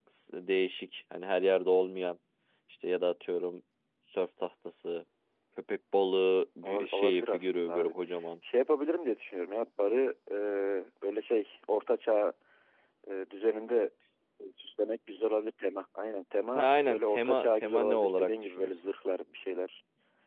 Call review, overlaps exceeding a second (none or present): present